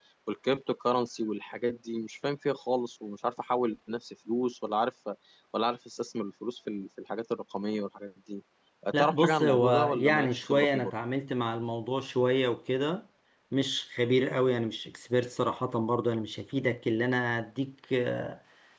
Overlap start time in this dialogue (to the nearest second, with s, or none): 9 s